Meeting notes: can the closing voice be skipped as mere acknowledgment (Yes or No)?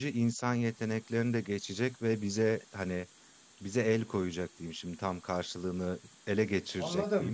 No